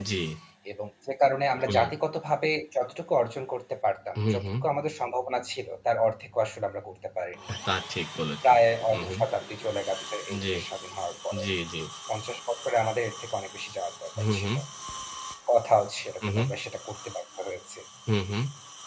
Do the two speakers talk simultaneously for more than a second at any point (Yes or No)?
No